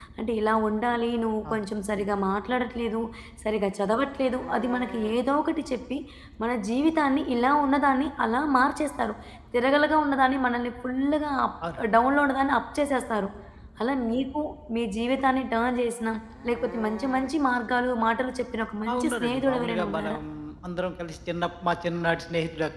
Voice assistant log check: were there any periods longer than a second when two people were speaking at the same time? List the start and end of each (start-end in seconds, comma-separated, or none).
18.9-20.2